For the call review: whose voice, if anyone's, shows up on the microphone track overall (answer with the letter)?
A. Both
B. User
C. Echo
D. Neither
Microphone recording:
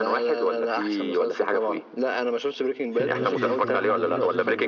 A